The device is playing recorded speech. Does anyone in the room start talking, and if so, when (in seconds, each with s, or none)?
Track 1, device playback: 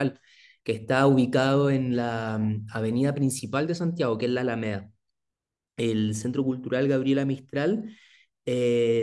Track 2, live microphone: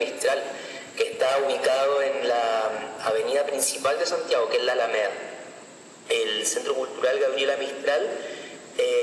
none